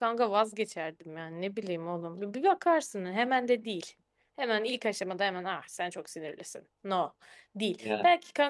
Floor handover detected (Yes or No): No